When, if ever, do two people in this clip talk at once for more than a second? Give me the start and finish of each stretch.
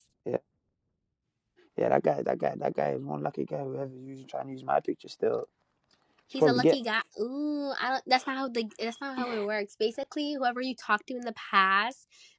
none

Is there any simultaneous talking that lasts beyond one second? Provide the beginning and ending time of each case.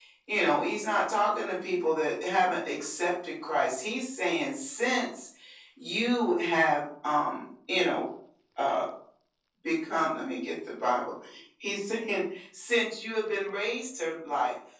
none

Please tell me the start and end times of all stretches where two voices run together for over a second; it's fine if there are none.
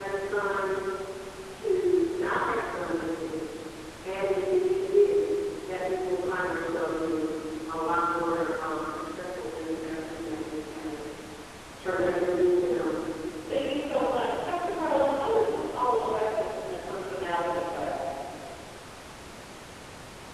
none

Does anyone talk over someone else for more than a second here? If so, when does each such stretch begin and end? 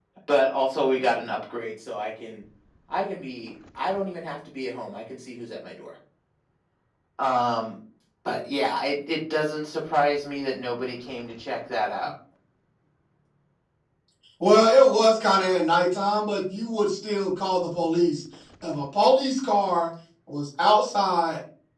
none

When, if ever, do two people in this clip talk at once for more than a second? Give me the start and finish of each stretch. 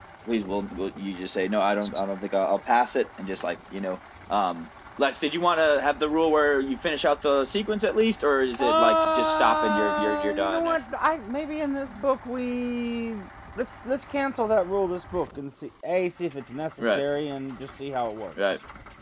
8.6-10.8

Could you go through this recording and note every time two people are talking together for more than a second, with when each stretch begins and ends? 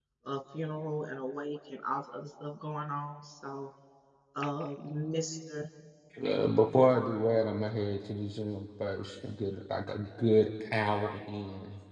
none

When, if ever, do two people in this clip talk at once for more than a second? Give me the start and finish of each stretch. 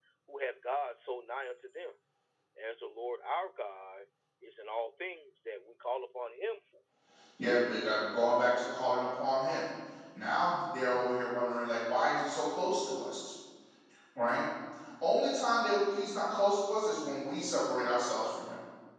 none

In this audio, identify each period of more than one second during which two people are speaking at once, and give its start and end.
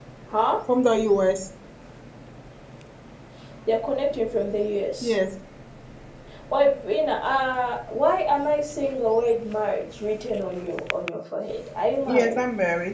none

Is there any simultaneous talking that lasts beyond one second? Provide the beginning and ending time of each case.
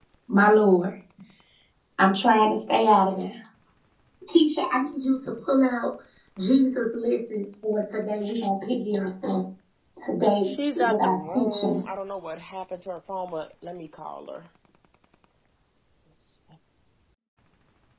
10.4-11.8

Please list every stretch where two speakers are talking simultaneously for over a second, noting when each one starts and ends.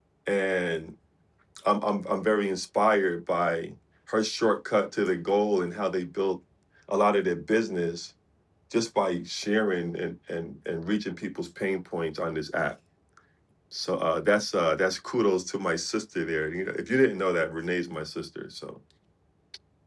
none

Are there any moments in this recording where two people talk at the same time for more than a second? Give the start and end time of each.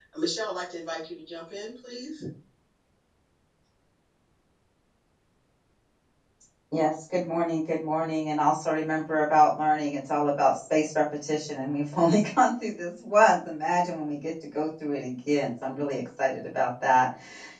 none

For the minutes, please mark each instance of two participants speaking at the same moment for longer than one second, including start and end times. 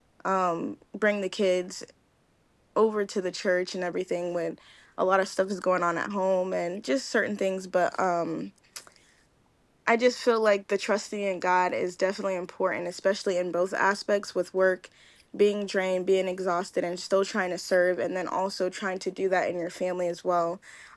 none

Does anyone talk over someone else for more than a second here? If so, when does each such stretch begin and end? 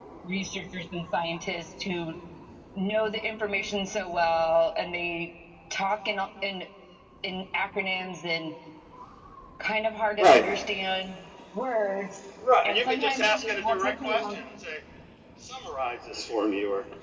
12.6-14.4

